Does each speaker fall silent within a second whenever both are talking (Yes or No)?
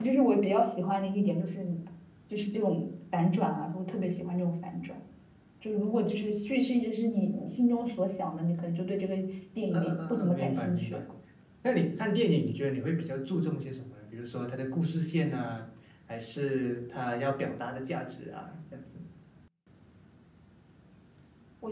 No